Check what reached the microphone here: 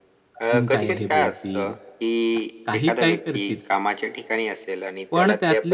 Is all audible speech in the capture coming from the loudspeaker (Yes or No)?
No